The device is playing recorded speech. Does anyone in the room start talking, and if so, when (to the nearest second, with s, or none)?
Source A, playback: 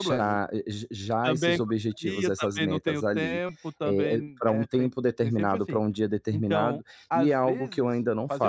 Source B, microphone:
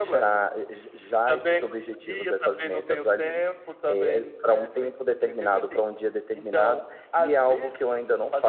none